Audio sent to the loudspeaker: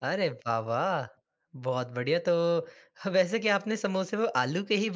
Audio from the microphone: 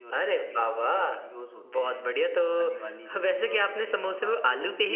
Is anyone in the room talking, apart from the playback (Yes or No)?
Yes